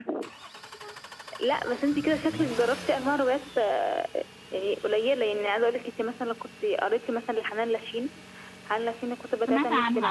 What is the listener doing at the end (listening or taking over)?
taking over